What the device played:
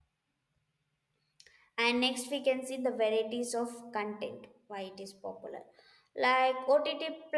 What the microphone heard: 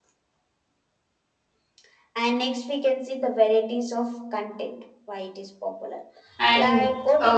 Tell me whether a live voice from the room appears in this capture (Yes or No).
Yes